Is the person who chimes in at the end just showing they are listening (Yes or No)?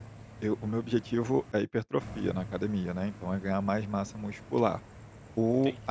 Yes